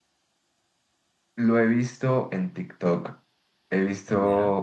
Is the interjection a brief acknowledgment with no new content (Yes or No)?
Yes